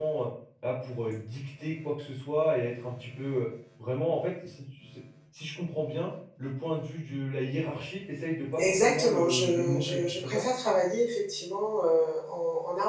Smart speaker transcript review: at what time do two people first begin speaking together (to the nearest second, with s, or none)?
9 s